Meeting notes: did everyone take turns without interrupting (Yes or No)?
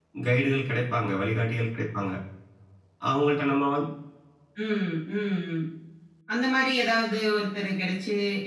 Yes